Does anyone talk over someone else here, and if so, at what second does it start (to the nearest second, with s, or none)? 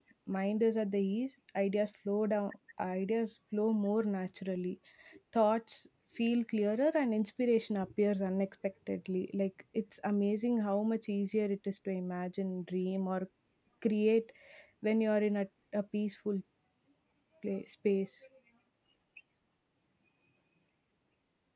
none